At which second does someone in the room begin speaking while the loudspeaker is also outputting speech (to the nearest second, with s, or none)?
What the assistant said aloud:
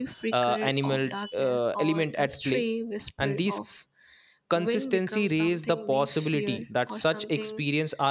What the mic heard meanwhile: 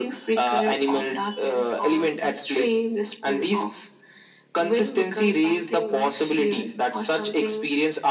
none